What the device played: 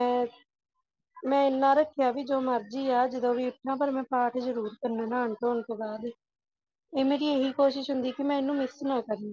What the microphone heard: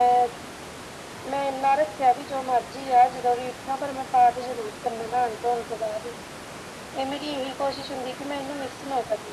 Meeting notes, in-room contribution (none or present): none